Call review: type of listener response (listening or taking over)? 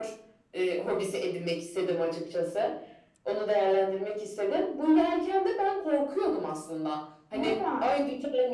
listening